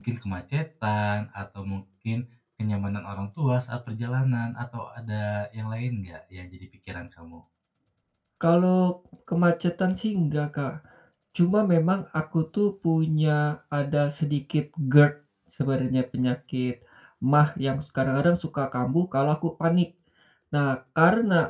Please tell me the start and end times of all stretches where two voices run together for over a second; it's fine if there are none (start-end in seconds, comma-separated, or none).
none